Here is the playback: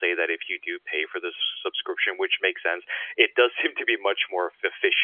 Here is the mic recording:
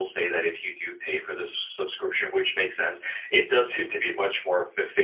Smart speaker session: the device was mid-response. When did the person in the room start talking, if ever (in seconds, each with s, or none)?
none